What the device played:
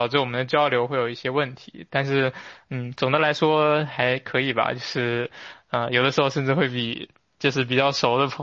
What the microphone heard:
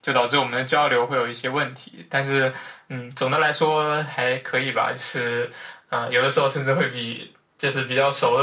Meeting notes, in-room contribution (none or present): none